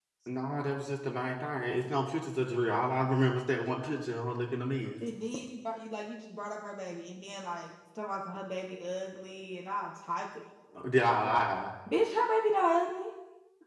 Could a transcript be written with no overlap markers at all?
Yes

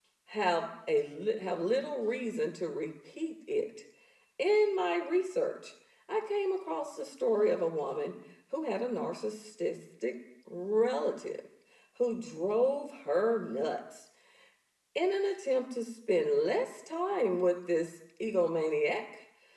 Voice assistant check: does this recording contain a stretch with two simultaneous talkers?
No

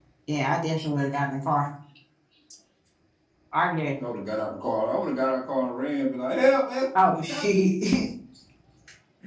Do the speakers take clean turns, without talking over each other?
Yes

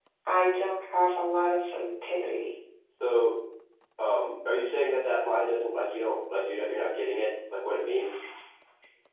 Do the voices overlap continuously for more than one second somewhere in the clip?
No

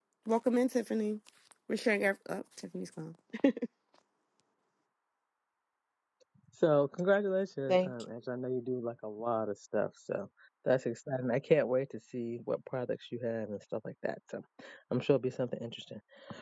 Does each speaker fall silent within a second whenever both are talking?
Yes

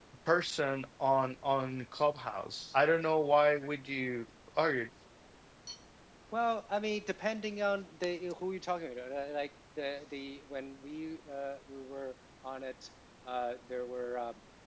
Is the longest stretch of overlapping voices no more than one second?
Yes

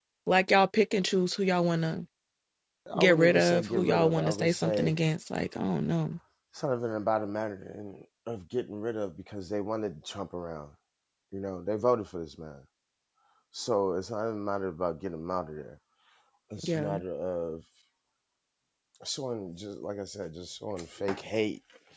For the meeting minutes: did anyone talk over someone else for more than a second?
Yes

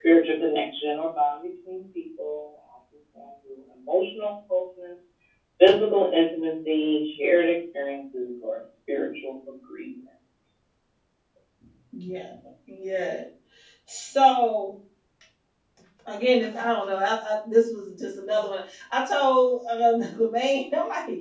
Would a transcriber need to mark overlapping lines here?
No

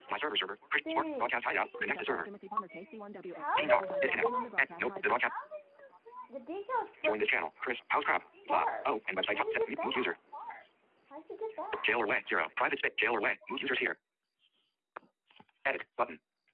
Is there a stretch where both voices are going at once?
Yes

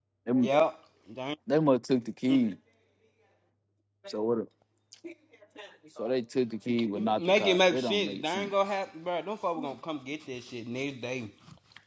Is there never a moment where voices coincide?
No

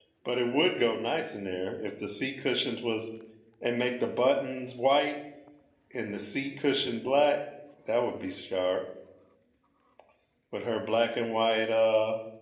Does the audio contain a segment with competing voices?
No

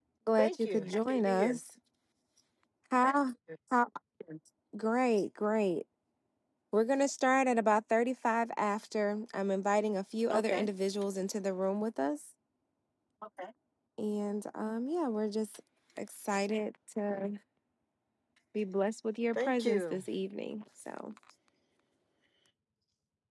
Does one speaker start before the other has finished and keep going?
Yes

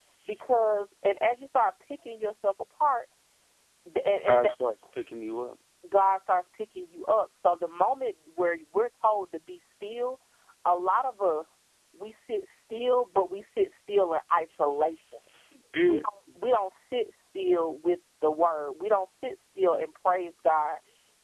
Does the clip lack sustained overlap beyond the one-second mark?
Yes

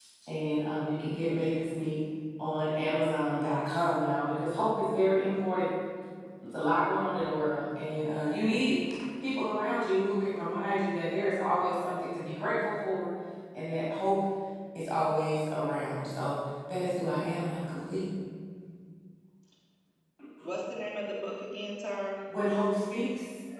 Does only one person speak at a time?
Yes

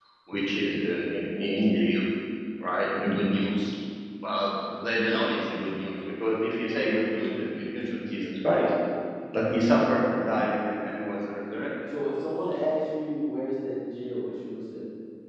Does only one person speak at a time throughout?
Yes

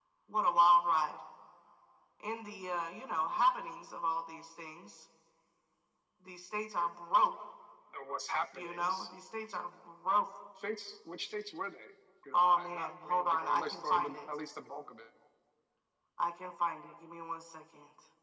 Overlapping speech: Yes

